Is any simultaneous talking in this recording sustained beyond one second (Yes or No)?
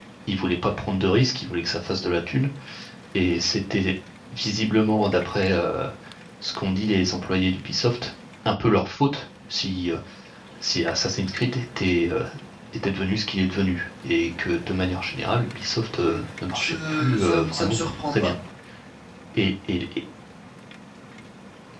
Yes